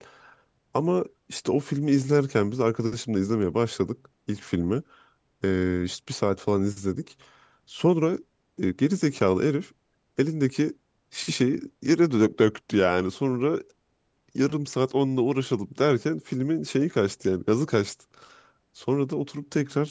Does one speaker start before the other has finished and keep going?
No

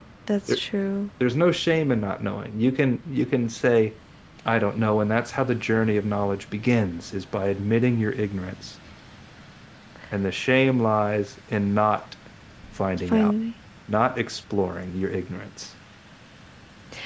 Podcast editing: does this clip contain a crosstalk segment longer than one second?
No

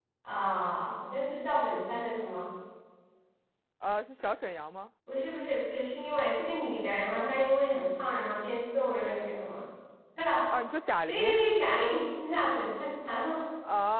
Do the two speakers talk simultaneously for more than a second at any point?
No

